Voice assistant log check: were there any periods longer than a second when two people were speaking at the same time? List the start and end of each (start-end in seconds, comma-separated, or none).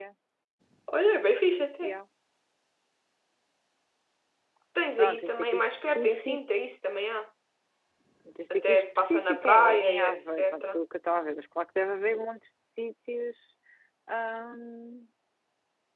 4.9-6.4, 8.5-10.8